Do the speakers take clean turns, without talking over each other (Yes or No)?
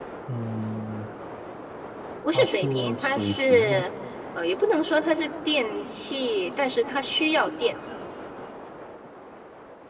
No